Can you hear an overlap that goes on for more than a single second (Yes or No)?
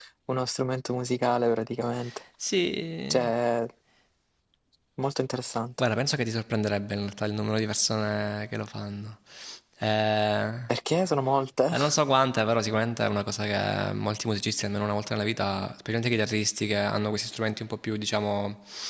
No